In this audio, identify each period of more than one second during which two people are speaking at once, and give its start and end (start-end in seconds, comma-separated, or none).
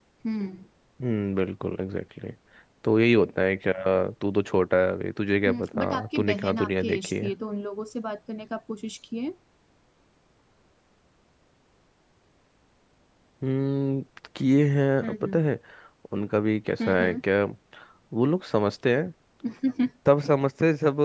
5.5-7.3